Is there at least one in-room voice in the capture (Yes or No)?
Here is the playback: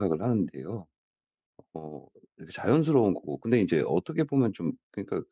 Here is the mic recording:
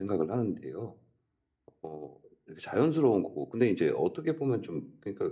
No